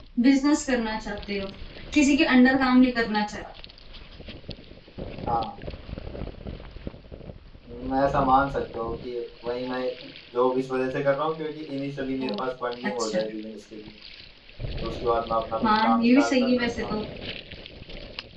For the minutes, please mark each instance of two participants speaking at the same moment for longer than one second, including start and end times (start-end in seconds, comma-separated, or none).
15.6-16.9